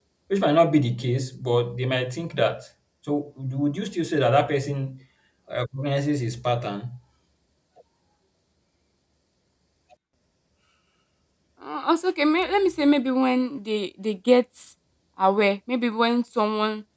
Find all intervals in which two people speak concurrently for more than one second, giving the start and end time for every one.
none

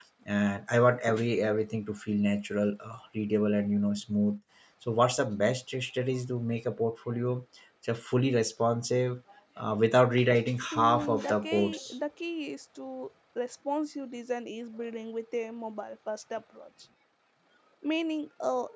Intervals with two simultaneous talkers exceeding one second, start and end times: 10.7-11.9

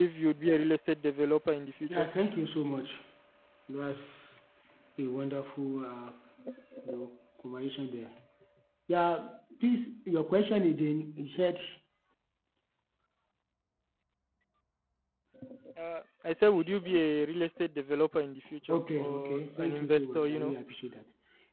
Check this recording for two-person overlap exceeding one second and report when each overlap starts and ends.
18.7-20.5

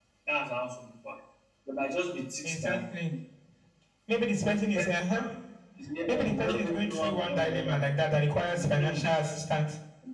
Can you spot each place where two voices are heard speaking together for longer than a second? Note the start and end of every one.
6.1-7.8

